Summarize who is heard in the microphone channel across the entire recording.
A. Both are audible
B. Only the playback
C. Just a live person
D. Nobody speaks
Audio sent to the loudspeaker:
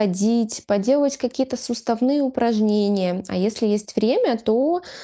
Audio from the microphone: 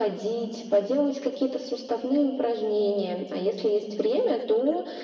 B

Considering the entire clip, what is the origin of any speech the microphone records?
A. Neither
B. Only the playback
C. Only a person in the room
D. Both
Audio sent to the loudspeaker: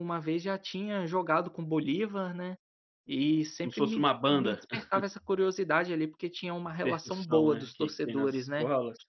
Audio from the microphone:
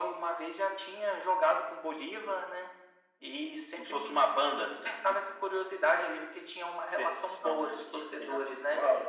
B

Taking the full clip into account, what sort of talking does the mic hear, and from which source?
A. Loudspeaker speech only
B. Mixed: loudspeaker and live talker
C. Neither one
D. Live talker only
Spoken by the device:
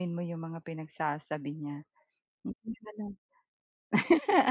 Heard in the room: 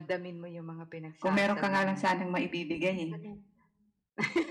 B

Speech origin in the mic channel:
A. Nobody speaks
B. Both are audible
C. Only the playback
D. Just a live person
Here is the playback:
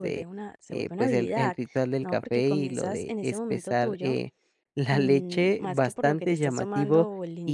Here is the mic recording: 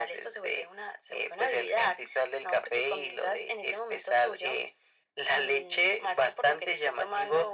C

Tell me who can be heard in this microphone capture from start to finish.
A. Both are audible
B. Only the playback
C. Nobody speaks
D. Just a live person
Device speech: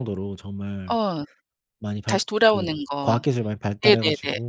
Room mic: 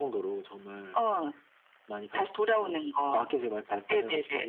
B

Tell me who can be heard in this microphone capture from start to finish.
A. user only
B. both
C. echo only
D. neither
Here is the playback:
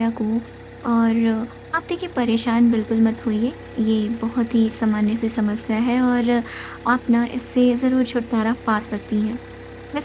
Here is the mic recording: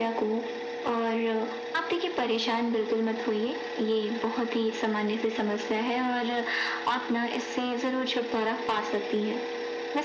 C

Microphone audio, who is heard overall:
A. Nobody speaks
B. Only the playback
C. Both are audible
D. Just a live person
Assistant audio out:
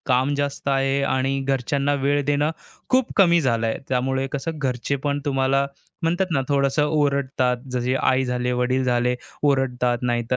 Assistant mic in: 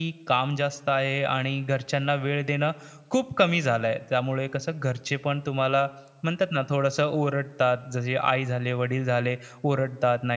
B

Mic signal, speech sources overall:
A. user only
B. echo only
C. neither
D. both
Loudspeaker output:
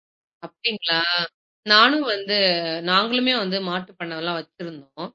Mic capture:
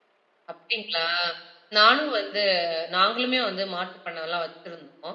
B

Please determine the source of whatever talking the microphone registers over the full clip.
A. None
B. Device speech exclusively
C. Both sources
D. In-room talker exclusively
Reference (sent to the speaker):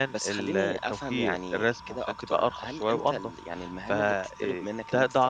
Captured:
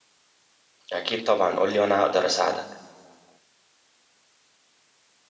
D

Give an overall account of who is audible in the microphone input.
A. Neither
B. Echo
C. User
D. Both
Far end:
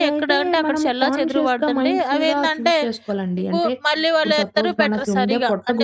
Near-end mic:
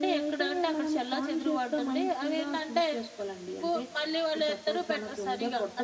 B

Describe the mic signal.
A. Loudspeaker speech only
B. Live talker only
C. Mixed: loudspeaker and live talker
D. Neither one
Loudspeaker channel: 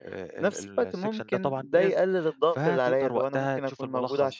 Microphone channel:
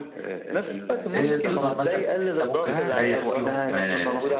C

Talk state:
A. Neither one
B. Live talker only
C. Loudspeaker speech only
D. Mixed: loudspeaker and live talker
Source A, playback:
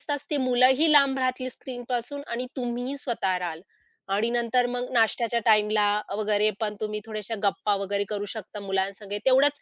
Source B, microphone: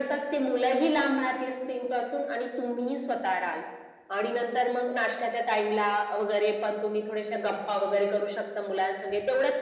C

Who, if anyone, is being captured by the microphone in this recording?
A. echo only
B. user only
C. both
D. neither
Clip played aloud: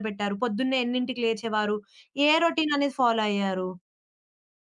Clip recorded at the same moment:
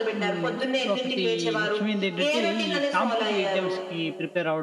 C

